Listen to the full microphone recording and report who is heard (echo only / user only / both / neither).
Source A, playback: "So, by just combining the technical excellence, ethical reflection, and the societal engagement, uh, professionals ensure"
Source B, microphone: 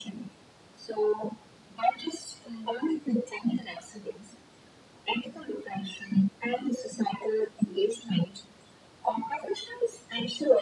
echo only